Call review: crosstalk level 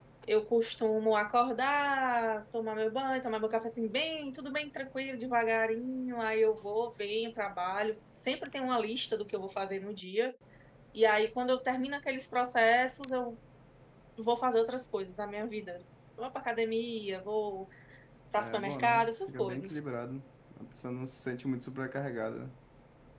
present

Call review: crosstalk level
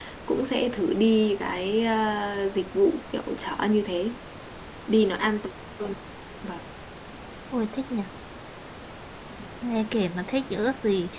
none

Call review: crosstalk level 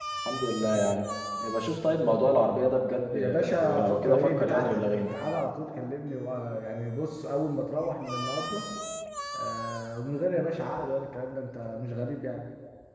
present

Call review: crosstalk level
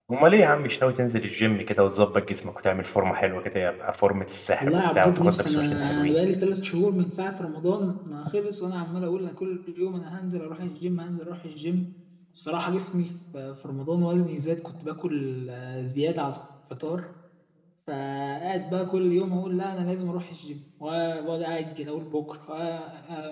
present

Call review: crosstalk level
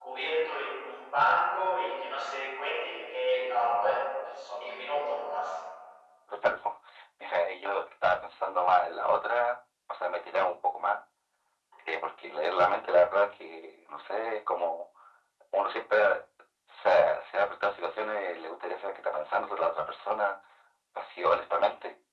none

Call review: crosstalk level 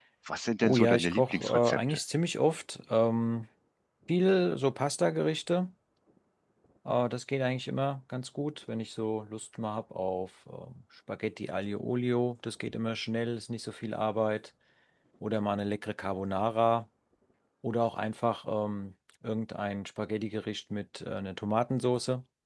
present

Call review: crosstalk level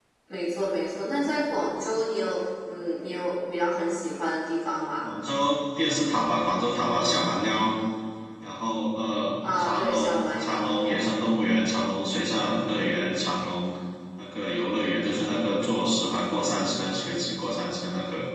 present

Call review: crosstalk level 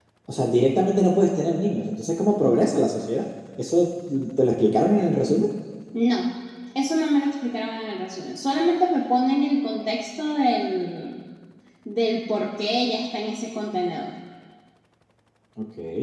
none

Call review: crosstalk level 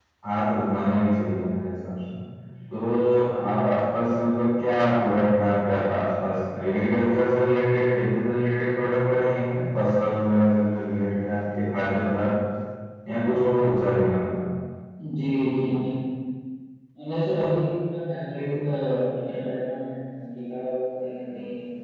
none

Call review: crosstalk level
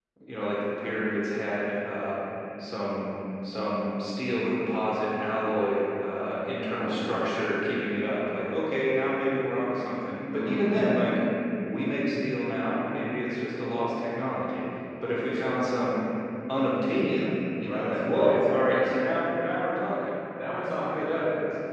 present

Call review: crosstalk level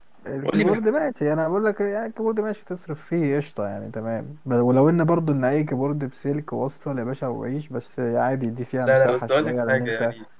present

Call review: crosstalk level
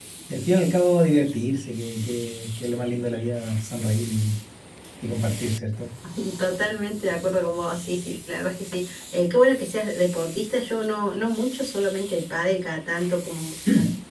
none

